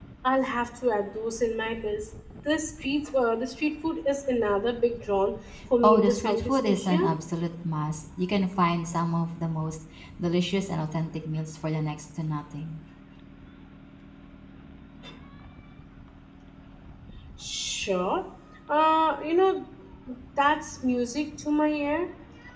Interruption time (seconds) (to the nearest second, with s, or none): 6 s